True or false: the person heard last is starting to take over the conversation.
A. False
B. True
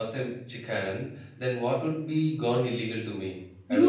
B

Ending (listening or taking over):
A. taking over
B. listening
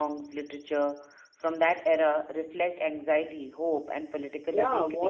A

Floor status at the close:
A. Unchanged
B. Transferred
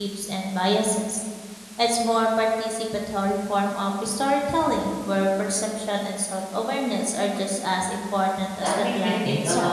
B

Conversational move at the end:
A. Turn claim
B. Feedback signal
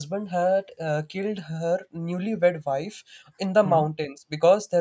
B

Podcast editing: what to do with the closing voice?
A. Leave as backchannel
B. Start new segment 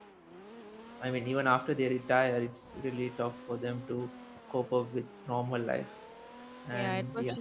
B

